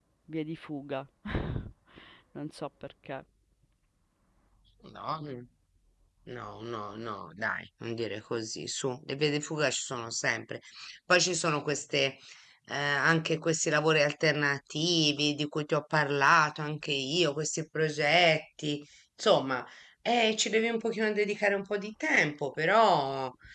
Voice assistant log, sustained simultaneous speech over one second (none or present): none